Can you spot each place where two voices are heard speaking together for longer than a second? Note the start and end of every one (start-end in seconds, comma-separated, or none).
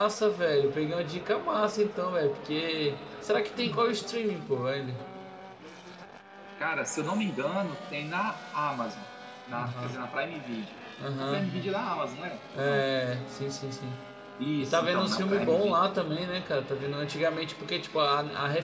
14.6-16.1